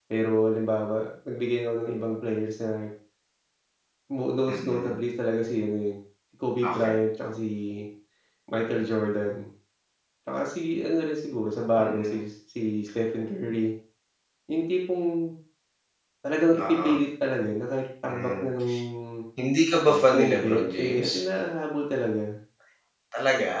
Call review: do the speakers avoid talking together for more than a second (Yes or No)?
No